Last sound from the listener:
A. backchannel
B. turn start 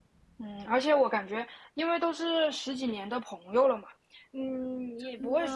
A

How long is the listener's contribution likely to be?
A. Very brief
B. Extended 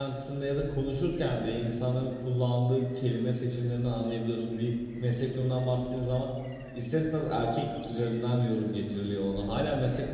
A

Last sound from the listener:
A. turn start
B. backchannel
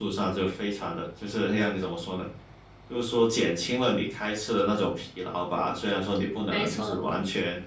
B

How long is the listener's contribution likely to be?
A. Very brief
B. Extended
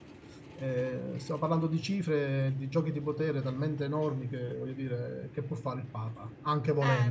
B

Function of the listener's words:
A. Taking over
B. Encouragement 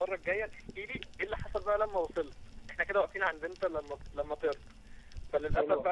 B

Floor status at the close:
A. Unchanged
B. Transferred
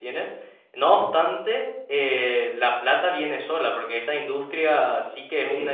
A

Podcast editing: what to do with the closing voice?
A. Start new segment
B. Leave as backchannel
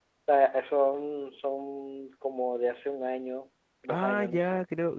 A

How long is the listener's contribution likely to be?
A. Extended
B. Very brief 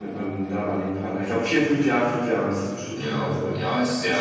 A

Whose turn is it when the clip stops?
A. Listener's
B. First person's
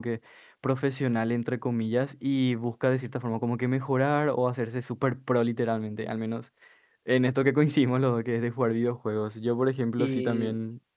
B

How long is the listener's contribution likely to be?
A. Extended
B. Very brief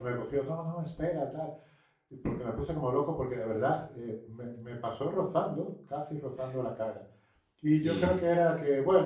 B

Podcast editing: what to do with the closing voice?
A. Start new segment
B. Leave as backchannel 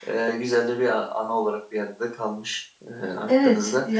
A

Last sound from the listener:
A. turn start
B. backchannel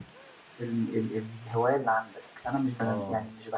B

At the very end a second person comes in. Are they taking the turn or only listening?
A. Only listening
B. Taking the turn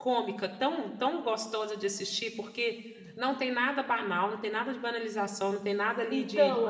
B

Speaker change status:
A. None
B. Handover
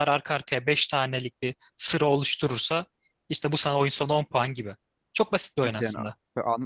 B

